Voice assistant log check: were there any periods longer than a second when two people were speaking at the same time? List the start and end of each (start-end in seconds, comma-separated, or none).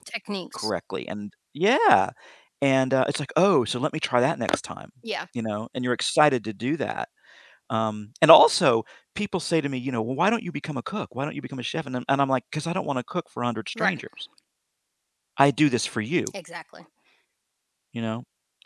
none